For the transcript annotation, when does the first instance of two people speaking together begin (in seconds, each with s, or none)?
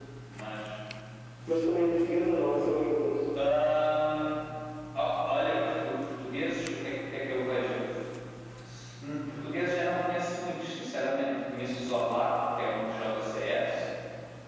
none